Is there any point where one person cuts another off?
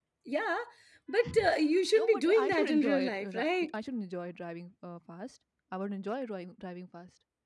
Yes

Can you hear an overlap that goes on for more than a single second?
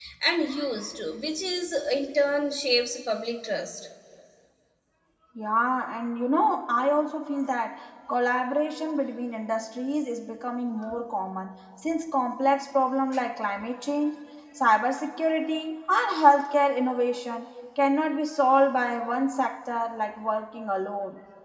No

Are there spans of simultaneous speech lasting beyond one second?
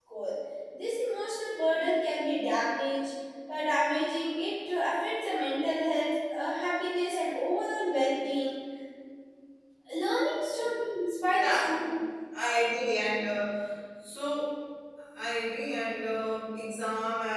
No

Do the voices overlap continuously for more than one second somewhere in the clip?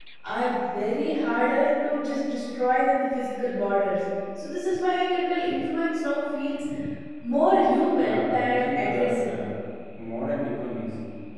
Yes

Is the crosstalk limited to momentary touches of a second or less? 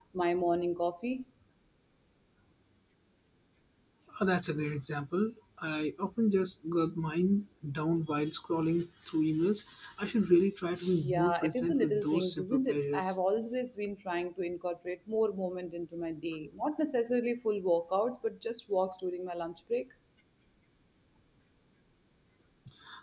No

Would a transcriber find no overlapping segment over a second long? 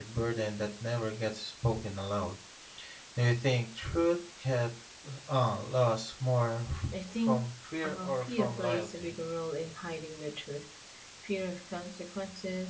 No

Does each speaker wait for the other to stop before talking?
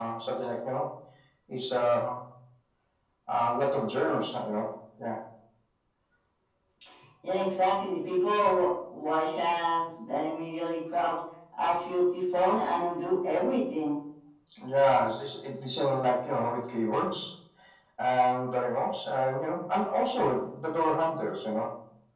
Yes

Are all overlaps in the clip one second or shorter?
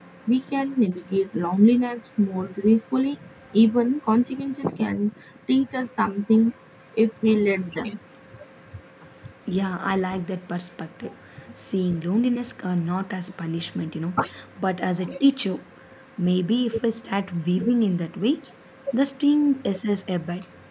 Yes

